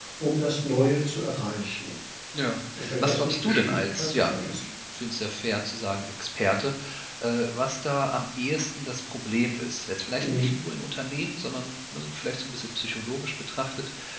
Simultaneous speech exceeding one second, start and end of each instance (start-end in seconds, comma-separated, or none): 3.0-4.3